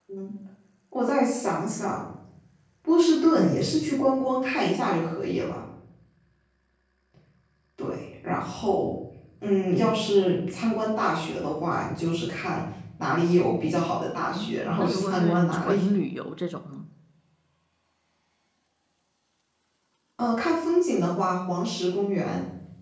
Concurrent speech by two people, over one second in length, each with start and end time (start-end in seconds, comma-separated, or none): 14.2-15.8